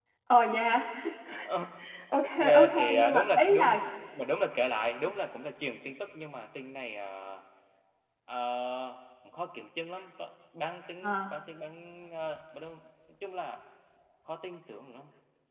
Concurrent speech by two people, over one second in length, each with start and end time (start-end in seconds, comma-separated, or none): 2.4-3.8